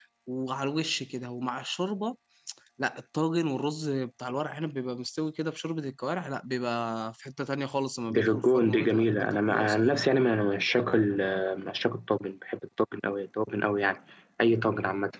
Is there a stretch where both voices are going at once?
Yes, from 8.1 s

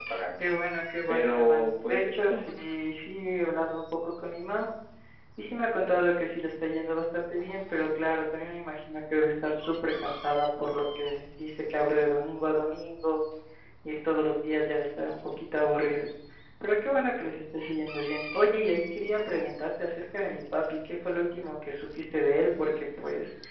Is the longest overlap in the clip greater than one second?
Yes, from 1.1 s

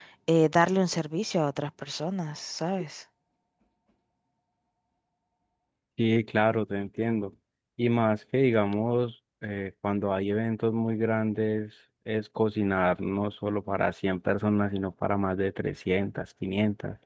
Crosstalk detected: No

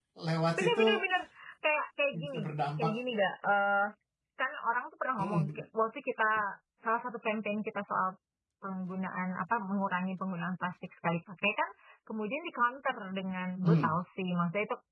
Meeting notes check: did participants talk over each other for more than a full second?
No

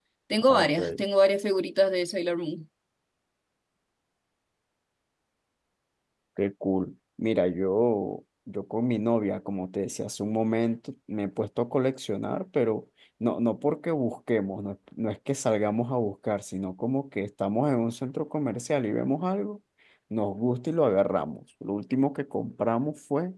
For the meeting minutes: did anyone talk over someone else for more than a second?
No

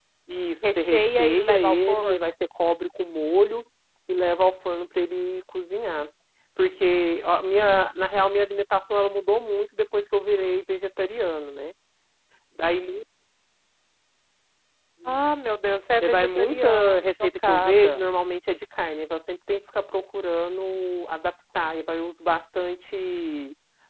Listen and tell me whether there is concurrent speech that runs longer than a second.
Yes, from 0.8 s

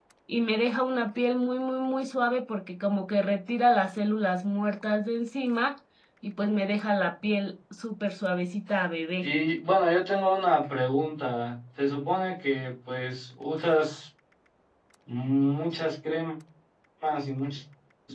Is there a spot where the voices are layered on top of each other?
No

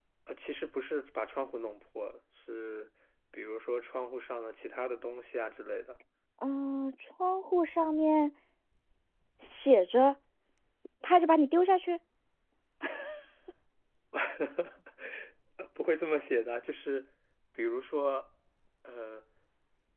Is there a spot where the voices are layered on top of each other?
No

